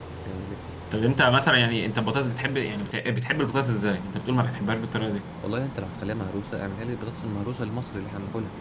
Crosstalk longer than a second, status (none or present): none